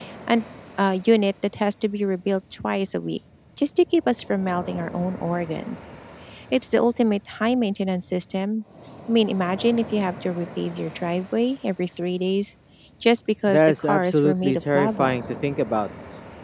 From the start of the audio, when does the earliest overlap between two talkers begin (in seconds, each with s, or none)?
13.5 s